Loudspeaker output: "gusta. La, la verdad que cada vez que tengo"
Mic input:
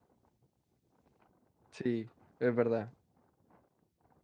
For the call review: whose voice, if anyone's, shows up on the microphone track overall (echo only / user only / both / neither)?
user only